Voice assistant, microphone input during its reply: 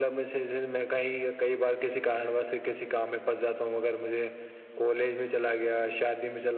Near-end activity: none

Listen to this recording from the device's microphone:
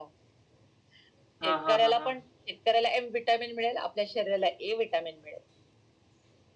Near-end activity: present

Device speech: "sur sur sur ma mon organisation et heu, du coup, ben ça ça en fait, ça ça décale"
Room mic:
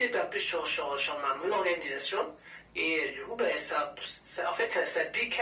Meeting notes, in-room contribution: none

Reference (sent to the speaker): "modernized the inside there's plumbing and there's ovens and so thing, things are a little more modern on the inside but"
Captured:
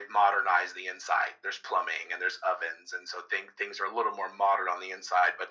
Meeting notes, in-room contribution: none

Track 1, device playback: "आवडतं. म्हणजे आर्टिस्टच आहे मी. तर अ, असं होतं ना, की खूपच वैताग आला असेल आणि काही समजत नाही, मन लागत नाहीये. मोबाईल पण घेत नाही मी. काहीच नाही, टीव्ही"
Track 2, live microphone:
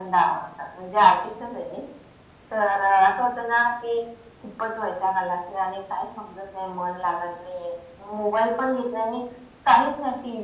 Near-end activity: none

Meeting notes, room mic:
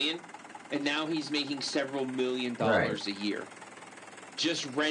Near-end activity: present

